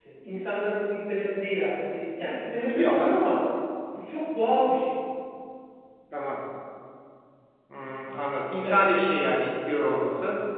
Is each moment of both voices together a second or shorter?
Yes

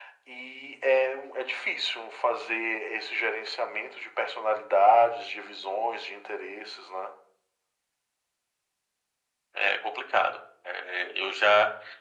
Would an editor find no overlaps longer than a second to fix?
Yes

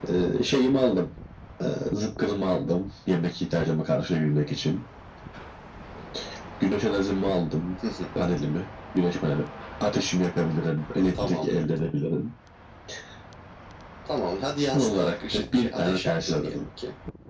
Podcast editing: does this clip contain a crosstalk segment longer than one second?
Yes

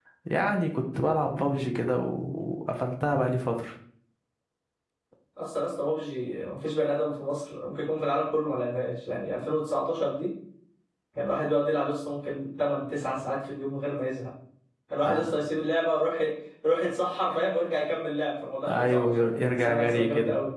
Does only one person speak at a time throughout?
No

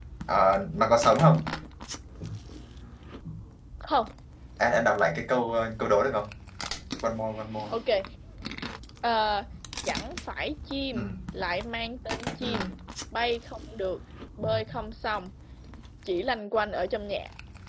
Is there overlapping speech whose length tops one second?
No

